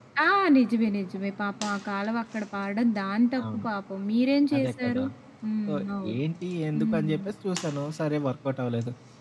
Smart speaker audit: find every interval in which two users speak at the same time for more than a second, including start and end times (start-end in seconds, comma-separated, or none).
none